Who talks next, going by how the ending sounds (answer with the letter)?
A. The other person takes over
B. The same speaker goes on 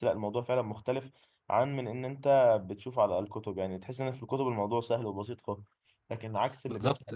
A